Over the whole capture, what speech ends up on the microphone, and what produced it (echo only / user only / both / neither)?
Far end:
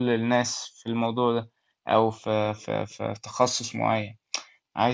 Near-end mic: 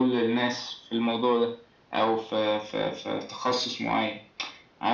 echo only